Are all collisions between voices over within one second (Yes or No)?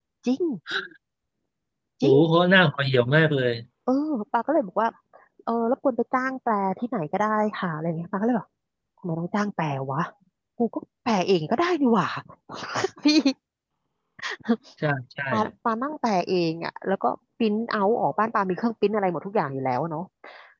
Yes